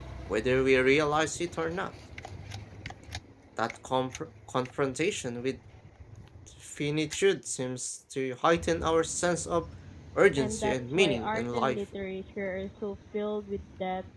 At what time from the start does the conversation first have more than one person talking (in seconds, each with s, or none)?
10.4 s